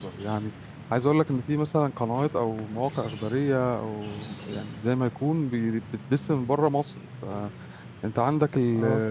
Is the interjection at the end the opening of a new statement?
No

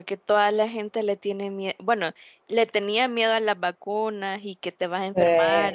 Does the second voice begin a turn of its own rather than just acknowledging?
No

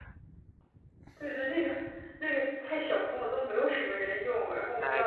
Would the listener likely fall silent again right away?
No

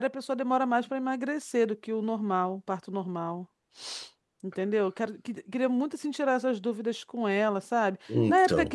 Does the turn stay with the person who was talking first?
Yes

